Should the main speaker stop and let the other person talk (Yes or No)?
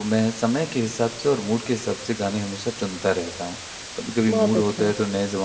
No